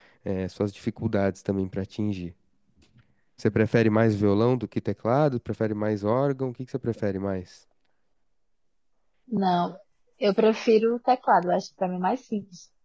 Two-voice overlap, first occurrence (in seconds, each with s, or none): none